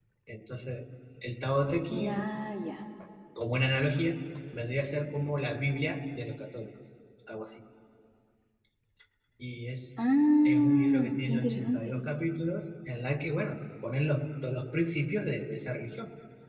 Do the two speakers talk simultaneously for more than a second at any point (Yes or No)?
Yes